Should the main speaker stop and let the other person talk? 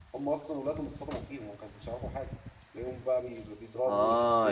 Yes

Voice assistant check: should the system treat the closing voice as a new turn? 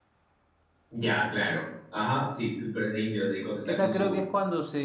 Yes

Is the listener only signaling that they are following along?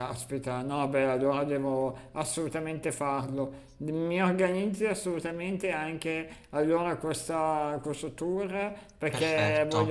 Yes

